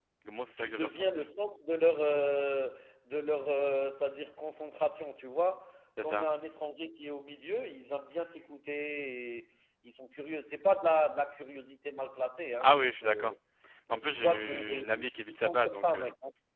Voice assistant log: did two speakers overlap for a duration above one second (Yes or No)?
Yes